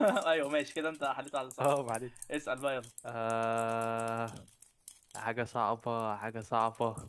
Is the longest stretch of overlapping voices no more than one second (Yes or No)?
Yes